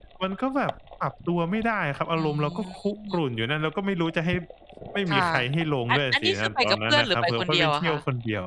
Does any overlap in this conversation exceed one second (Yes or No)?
Yes